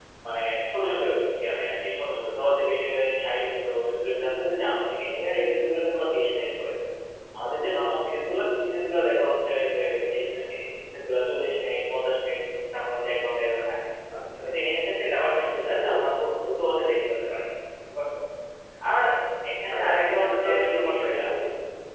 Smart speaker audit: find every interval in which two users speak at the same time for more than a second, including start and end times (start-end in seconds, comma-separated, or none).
19.7-21.2